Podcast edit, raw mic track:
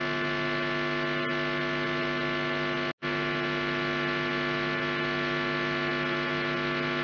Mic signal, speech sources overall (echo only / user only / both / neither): neither